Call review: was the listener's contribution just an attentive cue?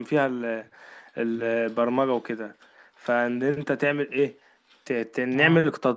Yes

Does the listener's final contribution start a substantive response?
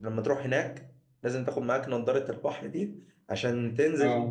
No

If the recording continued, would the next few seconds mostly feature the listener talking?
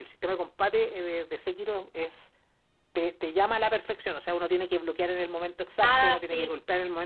No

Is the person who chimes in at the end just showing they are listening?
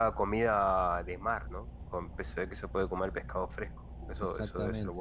No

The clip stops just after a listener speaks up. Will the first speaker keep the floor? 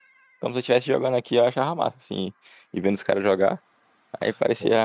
Yes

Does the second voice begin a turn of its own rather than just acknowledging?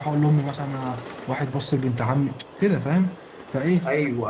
No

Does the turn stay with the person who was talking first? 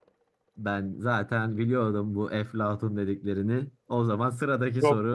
No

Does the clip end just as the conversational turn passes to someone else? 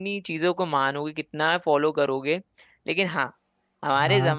No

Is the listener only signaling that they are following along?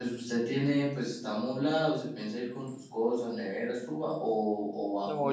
No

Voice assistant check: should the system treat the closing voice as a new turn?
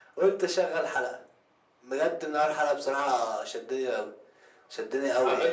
Yes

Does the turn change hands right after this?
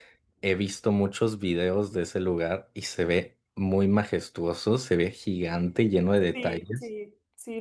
Yes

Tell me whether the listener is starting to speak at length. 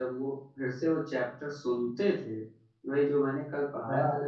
No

